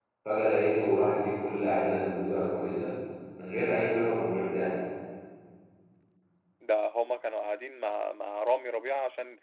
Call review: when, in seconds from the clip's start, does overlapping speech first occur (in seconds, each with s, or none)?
none